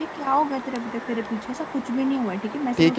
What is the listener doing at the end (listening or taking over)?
taking over